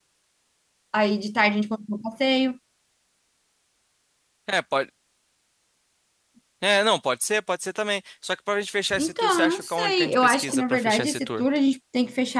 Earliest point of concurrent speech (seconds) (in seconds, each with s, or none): 8.9 s